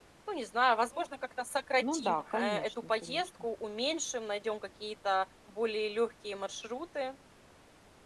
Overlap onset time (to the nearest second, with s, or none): 2 s